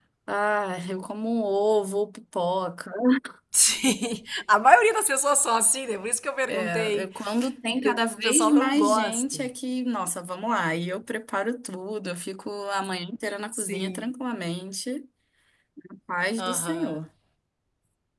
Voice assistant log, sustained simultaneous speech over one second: present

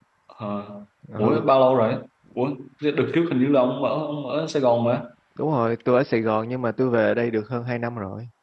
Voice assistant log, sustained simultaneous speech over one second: none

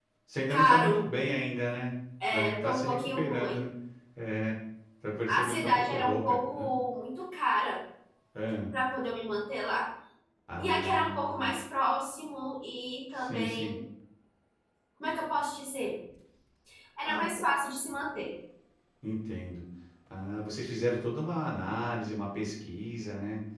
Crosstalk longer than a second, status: present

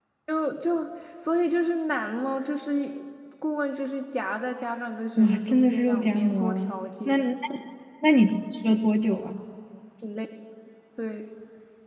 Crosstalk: present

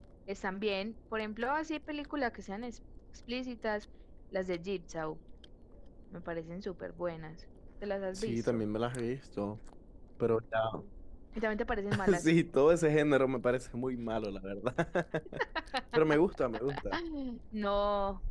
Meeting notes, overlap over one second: none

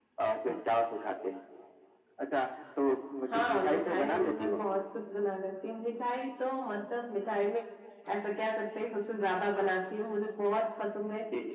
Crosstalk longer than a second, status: present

